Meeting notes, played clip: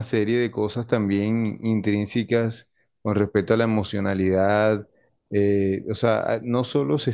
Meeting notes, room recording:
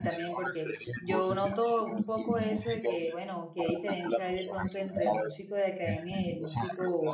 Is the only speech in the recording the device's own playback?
No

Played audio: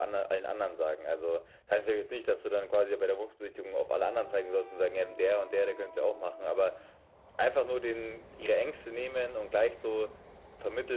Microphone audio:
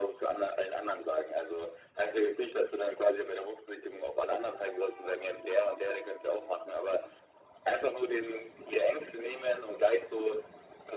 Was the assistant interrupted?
No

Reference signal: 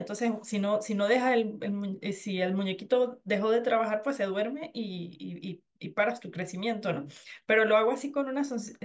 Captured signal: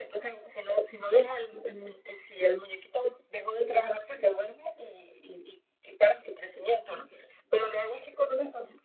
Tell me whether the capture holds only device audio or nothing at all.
Yes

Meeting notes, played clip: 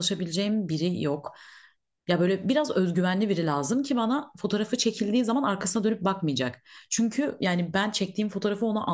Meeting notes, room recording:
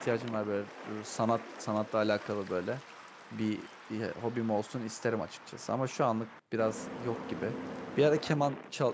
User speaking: Yes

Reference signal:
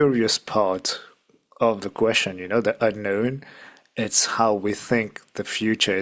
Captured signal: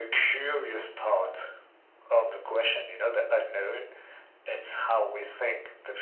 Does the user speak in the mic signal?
No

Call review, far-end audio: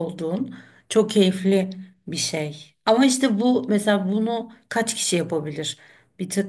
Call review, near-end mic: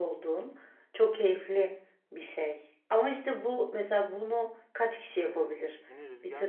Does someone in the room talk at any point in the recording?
Yes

